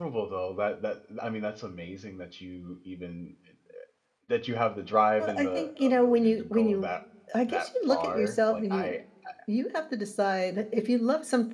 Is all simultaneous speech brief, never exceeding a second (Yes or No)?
No